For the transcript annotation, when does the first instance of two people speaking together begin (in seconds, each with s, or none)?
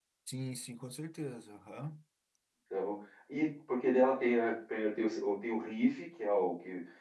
none